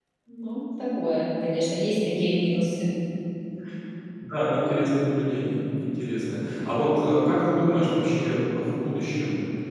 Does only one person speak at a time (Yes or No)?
Yes